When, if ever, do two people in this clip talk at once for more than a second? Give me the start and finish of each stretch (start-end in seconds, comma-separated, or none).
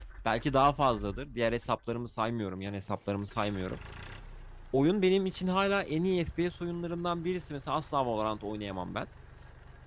none